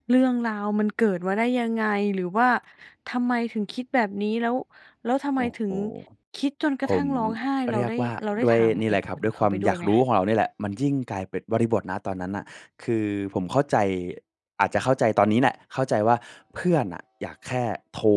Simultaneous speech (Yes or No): Yes